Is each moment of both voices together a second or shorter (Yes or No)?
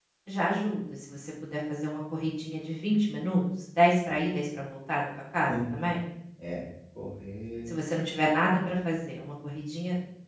Yes